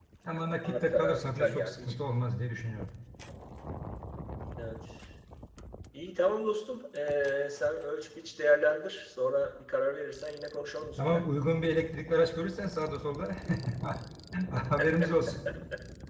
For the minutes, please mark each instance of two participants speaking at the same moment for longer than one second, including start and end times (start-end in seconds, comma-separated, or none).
0.6-1.9